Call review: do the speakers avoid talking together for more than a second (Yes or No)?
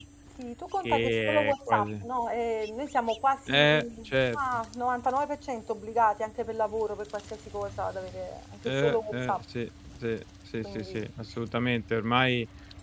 No